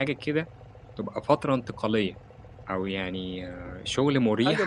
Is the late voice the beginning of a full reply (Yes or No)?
Yes